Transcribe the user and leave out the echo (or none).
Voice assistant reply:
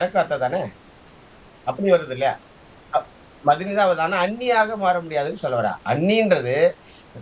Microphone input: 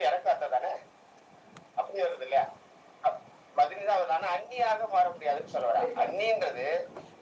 புரியுது. சரி.